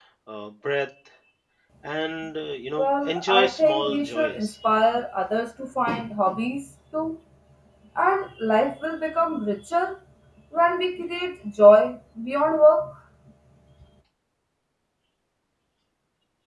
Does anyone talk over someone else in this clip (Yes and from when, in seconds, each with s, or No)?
Yes, from 2.8 s